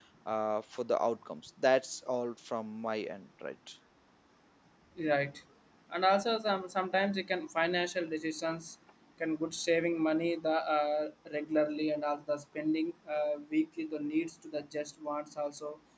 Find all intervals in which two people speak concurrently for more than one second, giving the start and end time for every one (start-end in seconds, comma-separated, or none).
none